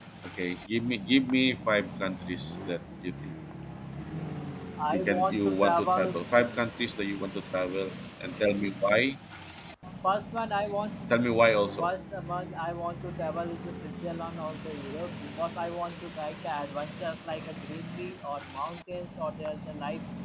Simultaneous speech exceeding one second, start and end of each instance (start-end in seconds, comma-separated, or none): 4.9-6.2